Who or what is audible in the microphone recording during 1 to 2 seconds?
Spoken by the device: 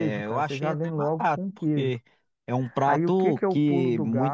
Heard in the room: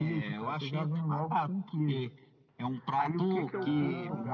echo only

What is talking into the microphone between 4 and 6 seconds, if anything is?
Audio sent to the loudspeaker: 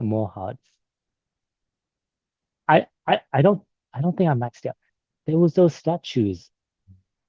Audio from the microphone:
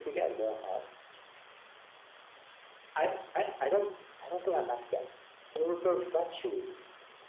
echo only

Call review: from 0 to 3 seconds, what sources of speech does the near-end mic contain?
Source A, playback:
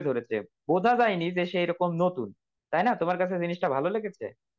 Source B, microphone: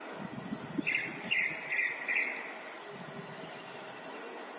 neither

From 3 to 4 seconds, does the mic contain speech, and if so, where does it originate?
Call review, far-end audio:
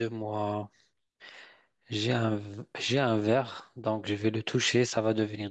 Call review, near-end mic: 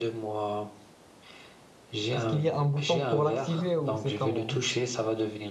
both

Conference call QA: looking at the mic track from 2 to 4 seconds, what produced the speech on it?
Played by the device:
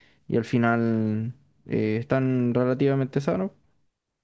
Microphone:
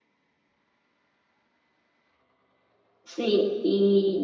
user only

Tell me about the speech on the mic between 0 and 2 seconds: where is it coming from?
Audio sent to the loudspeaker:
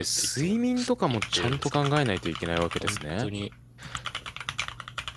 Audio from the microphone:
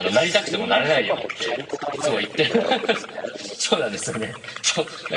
both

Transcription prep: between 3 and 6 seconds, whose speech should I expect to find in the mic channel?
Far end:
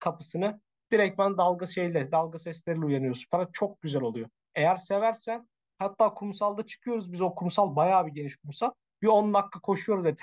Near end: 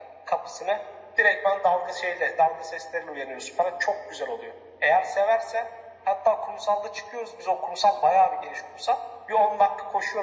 echo only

